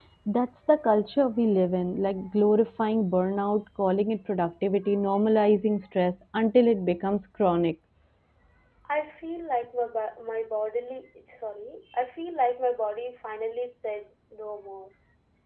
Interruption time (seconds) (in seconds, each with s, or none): none